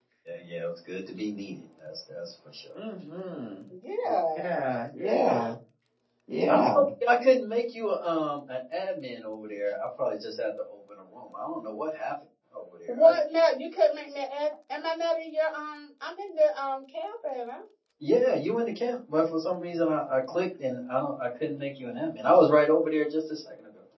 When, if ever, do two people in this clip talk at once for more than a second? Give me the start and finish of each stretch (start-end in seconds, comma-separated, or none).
none